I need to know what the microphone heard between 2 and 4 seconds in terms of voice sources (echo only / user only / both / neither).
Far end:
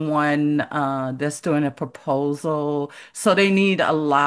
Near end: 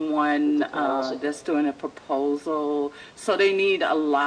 echo only